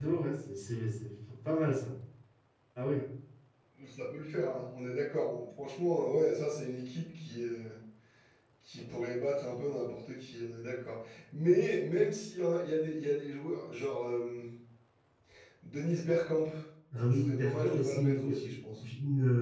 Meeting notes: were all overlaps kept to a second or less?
No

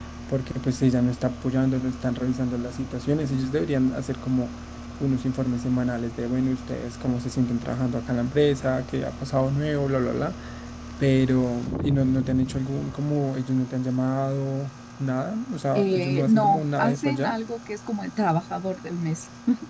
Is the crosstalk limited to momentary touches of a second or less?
No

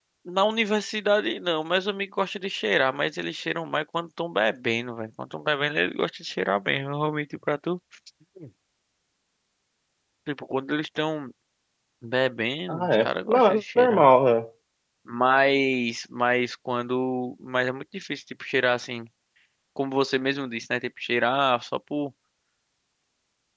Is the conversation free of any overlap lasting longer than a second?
No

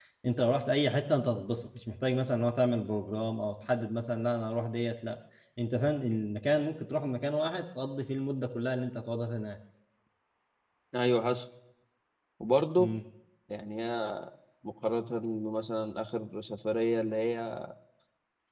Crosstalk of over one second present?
No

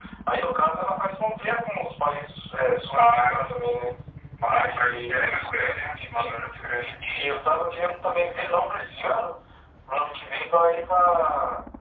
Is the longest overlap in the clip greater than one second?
Yes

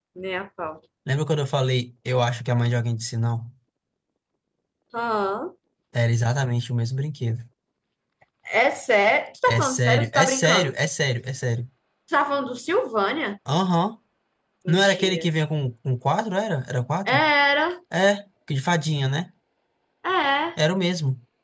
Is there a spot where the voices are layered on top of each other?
Yes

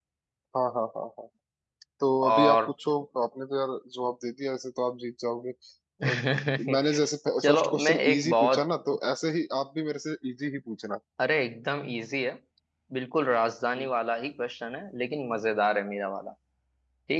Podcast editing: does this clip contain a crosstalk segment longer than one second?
Yes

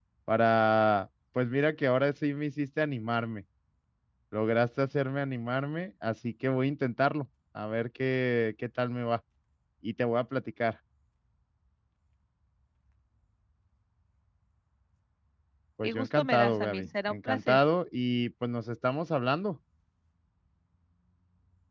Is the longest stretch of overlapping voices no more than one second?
No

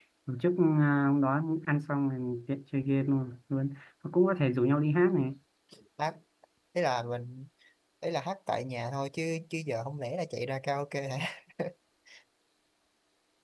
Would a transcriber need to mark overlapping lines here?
No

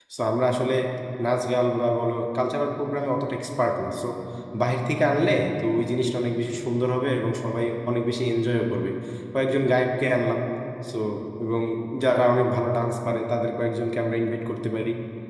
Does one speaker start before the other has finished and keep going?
No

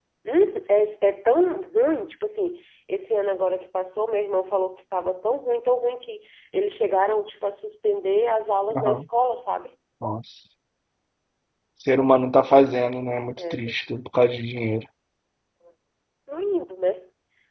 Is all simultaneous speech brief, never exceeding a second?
Yes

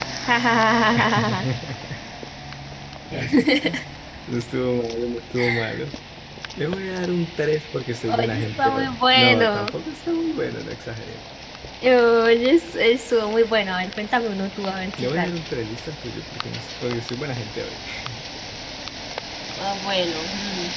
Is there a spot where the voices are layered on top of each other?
Yes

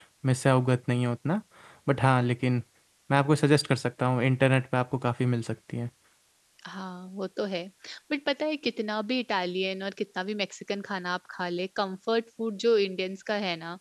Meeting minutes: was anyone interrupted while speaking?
No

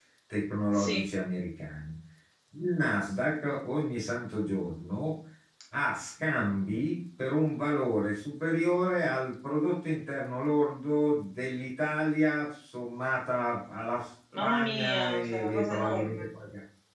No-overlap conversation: No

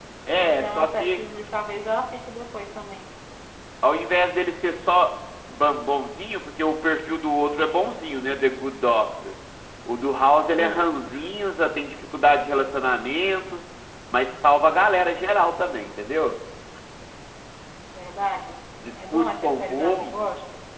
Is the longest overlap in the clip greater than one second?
Yes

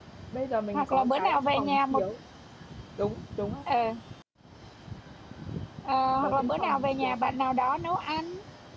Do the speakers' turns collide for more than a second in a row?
Yes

